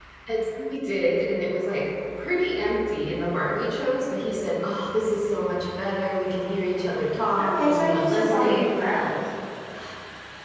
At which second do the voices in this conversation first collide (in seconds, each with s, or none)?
7.4 s